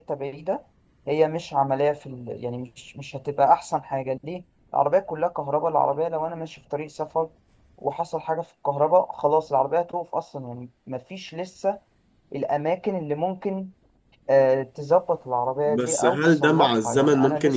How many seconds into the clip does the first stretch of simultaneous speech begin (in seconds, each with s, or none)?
15.7 s